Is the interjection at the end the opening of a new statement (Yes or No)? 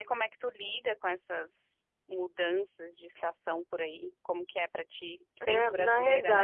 Yes